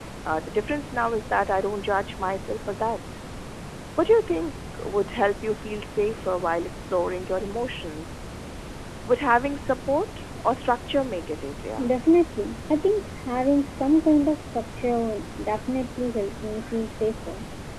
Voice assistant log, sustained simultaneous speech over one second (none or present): none